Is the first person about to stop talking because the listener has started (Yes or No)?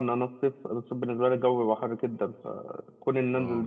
No